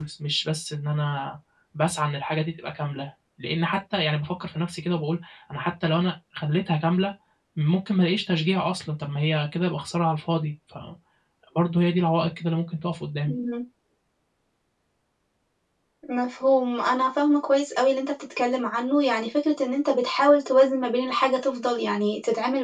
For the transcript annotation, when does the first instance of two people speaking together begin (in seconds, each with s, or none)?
none